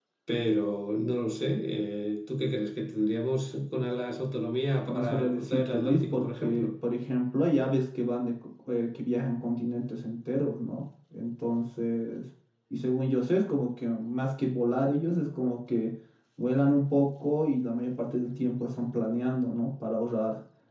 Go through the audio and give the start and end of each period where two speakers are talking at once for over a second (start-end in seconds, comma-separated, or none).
4.9-6.7